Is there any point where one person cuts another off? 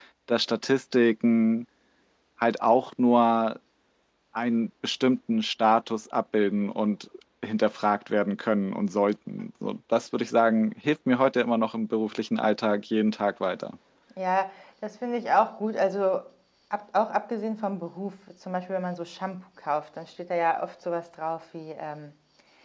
No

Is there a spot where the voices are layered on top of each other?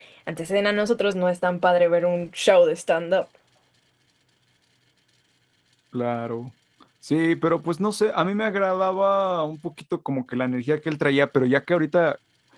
No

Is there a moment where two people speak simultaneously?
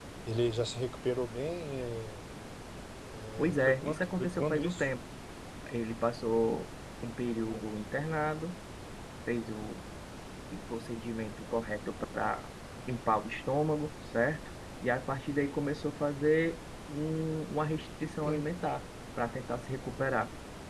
Yes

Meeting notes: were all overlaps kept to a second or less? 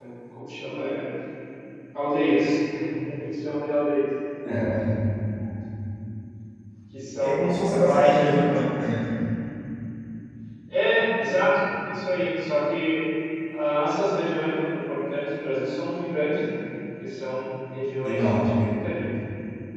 No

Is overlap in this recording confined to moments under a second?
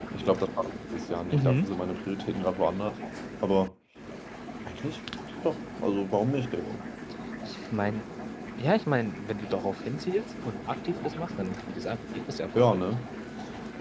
Yes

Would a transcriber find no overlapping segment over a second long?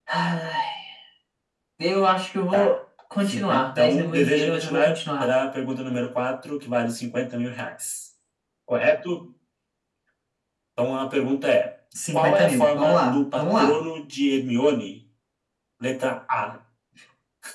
No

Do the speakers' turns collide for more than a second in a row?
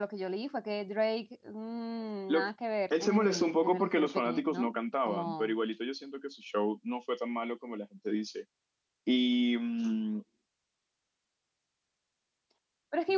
Yes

